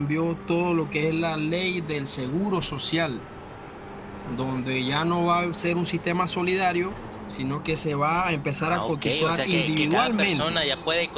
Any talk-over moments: Yes, from 8.6 s

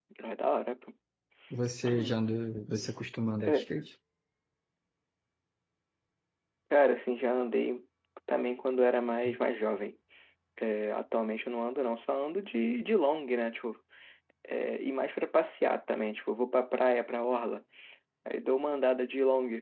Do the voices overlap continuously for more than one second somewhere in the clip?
No

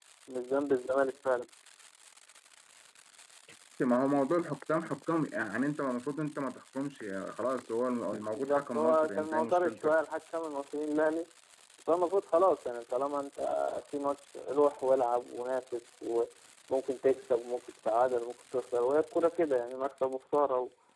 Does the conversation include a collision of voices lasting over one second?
Yes, from 8.3 s

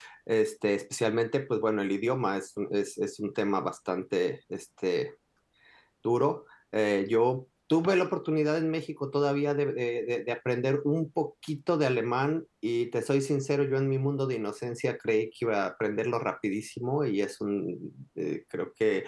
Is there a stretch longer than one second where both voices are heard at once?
No

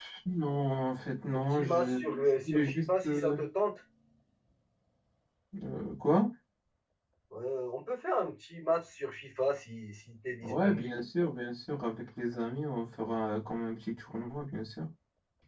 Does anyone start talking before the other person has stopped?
Yes, from 1.3 s

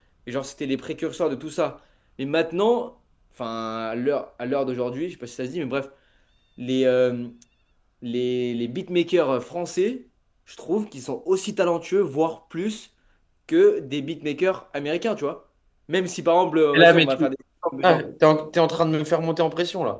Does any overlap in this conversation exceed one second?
No

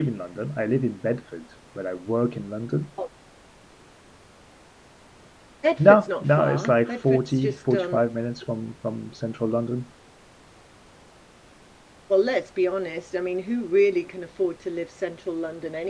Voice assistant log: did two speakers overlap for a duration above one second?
Yes, from 5.8 s

